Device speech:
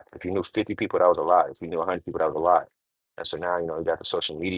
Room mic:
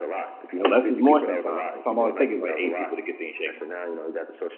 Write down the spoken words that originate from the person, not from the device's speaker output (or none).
And less is more sometimes. Sometimes all it takes is like eight people to get things shaking.